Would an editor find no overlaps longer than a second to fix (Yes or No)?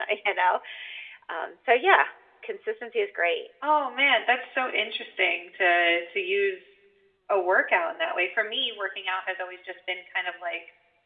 Yes